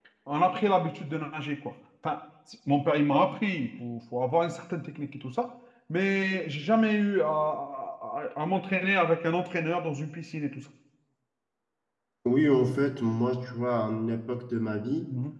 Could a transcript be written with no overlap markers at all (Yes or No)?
Yes